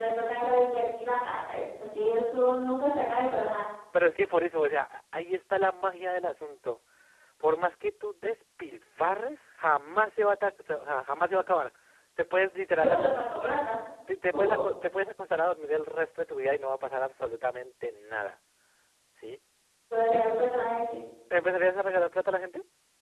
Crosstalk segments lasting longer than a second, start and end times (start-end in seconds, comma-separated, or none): none